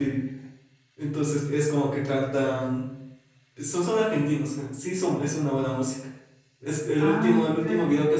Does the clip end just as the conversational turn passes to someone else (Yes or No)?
No